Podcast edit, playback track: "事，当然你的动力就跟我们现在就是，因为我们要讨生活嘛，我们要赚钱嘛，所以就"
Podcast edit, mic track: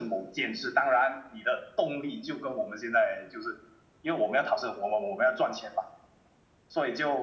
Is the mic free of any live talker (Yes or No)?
Yes